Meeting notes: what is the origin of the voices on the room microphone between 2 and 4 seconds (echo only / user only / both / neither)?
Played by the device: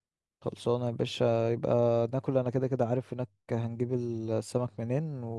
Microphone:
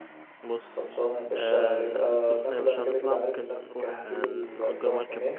both